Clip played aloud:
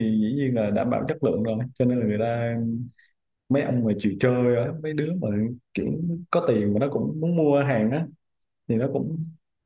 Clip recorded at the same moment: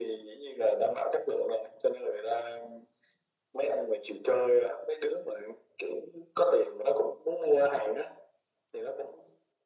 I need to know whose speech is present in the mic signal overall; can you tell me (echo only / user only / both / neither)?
echo only